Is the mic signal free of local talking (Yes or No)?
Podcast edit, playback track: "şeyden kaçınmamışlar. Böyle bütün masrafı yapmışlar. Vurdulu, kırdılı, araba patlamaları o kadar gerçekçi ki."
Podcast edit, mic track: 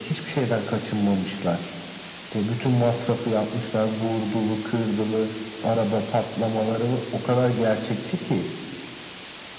Yes